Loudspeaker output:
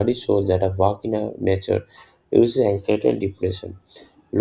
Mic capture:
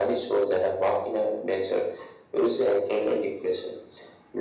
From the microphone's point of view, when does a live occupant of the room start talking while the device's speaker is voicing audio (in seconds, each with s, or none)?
none